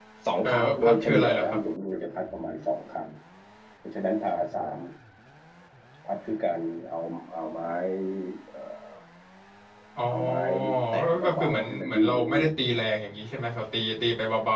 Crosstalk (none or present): present